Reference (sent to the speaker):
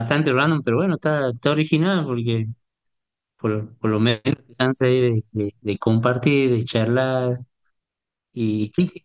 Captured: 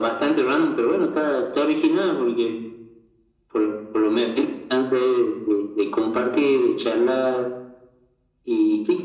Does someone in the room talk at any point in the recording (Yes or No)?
No